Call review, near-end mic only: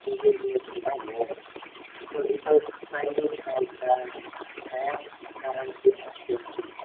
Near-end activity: none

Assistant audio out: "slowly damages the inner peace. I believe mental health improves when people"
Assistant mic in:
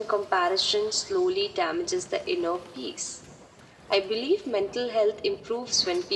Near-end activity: none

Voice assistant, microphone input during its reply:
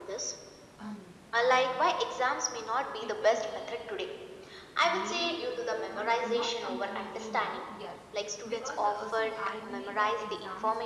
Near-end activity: present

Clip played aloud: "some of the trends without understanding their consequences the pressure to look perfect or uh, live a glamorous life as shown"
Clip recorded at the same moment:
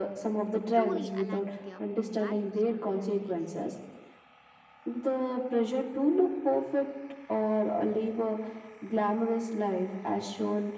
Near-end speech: present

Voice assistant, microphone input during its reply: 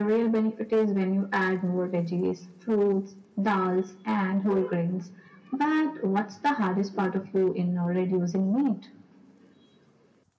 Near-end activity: none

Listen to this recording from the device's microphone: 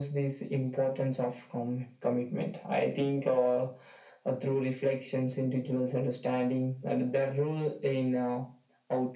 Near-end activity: none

